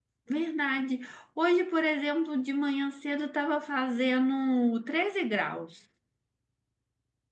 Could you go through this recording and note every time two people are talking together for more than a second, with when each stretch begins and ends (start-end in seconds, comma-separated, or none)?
none